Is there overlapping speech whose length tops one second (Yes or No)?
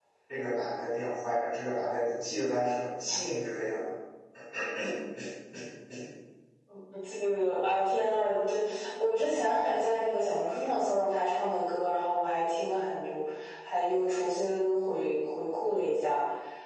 No